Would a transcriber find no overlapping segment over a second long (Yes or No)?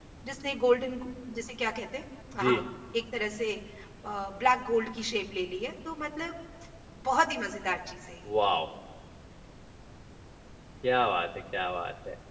Yes